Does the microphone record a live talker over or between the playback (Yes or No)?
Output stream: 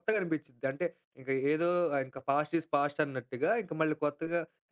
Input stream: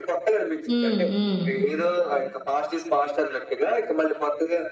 Yes